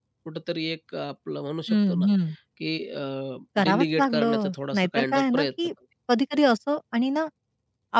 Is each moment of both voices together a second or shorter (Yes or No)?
No